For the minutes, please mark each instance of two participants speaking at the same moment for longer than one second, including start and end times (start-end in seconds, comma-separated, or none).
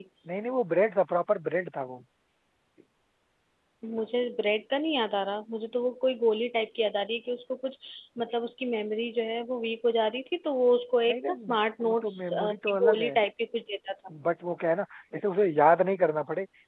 11.1-13.2